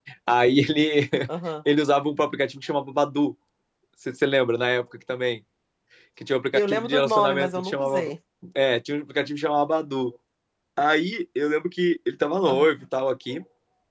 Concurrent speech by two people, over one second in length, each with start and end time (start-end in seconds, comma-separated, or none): 6.5-8.1